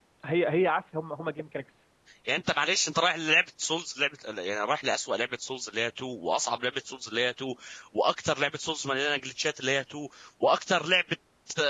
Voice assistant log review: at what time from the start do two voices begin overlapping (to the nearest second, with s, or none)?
none